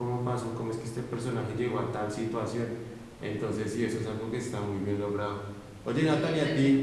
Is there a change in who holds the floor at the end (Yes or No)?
No